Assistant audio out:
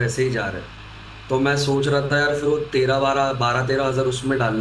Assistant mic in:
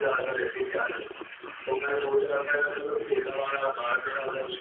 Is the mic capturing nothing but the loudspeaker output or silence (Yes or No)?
Yes